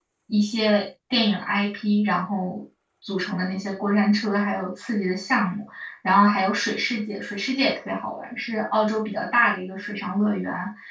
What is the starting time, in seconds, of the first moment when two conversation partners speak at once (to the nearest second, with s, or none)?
none